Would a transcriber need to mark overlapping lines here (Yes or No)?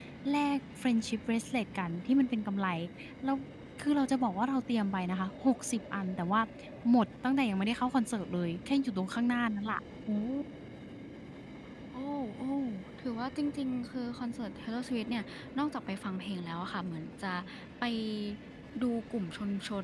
No